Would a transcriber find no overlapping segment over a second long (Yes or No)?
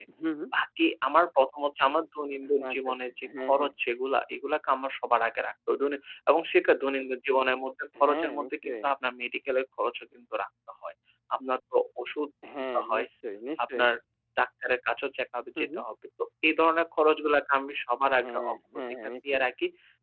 No